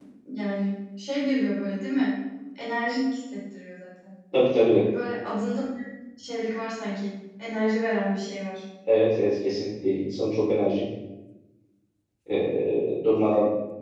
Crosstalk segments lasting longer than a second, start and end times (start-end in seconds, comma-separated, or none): none